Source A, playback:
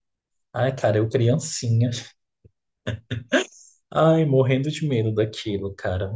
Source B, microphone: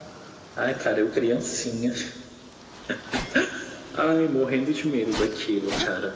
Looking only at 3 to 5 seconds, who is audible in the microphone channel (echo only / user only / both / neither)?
echo only